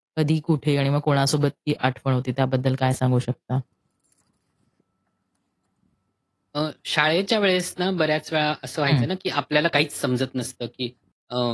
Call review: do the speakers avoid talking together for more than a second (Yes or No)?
Yes